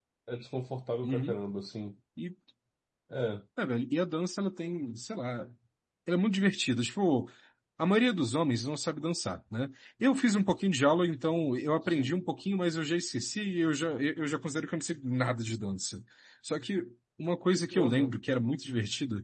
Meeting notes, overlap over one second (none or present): none